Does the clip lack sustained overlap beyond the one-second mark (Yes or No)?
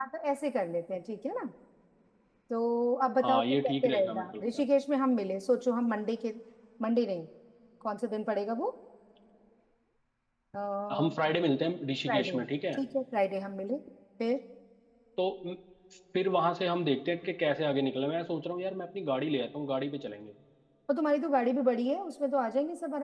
No